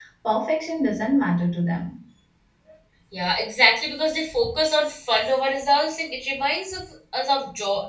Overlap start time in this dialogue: none

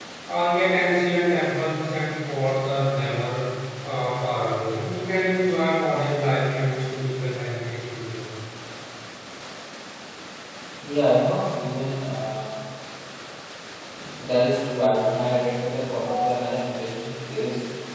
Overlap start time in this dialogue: none

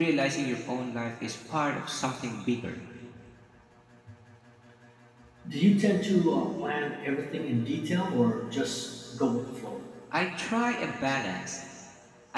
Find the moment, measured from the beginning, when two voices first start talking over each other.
none

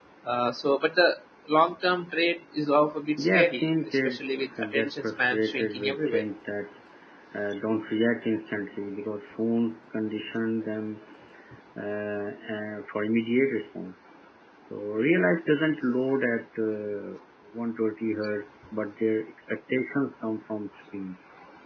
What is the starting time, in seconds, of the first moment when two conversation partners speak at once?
3 s

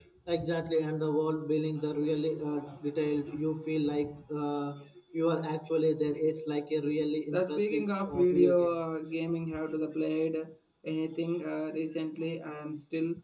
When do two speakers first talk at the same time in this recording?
7 s

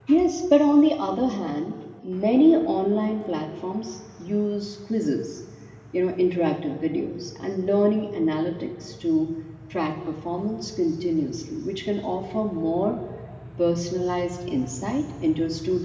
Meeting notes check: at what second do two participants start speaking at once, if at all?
none

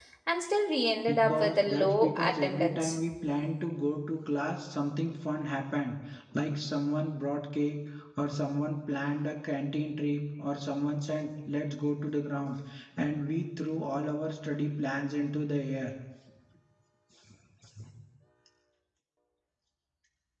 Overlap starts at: 1 s

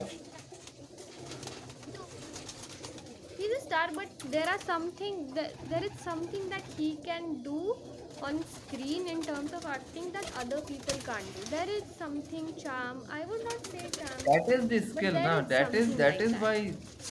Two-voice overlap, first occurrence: 15 s

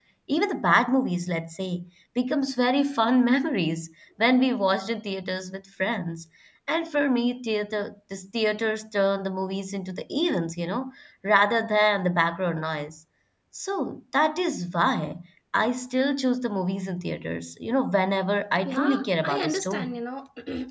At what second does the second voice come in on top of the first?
19 s

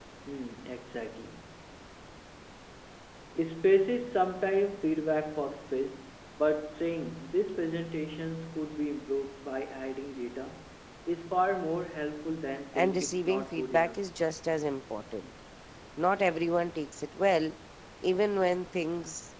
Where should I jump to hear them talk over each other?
13 s

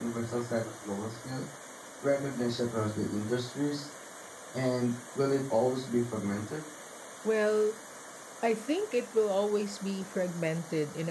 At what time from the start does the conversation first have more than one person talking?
none

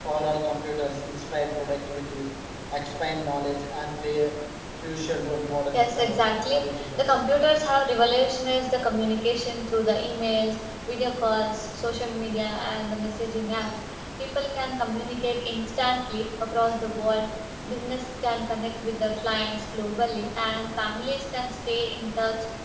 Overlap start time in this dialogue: 6 s

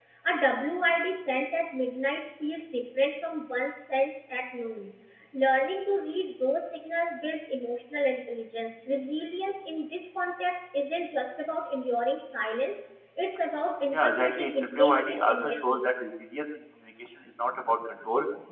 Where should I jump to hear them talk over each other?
14 s

